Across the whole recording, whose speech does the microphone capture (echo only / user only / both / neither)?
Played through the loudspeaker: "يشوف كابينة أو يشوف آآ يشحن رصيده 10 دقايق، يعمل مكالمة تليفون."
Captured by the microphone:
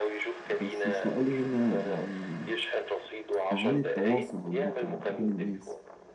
both